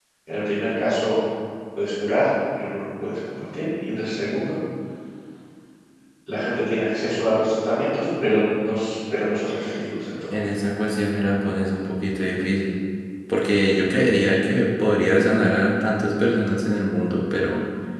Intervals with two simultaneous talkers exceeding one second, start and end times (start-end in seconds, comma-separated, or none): none